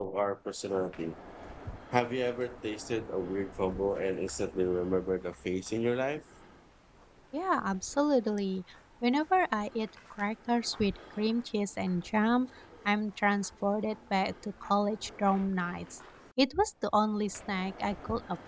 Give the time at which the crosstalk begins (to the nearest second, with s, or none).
none